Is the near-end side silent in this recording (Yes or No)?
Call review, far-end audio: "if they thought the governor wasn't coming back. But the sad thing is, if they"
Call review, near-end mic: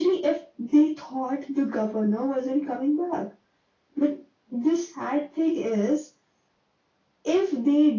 Yes